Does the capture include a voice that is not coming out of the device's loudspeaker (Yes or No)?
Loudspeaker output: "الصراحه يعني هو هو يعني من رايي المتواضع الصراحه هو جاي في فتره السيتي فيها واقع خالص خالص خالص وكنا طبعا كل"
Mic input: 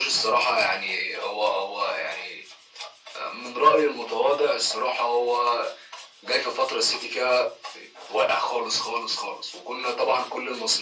No